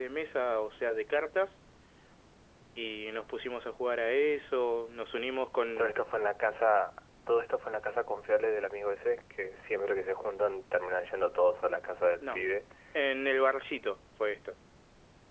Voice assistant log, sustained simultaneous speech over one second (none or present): none